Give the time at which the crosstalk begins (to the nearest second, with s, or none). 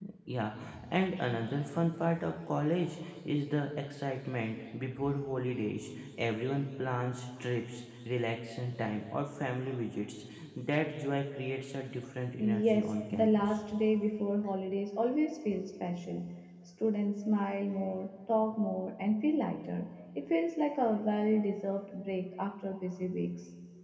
12 s